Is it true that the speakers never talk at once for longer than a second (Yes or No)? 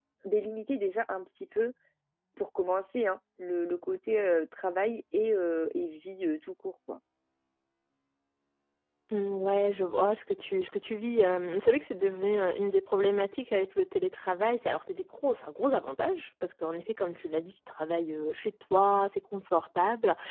Yes